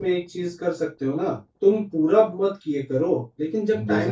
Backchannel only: Yes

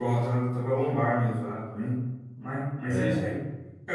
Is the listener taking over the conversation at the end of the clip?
No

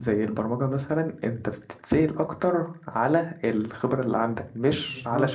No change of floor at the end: No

